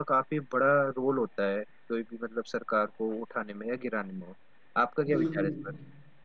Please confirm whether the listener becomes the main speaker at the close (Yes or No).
Yes